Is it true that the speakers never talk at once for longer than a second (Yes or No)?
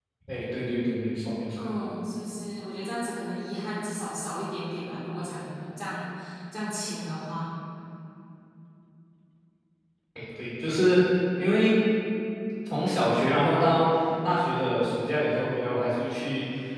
Yes